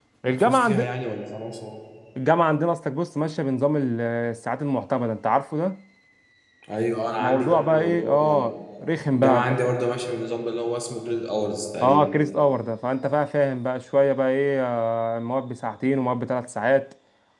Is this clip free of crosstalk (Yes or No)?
No